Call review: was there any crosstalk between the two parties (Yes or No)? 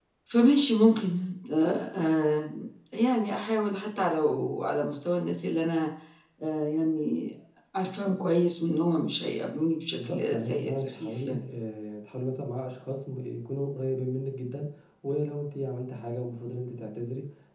Yes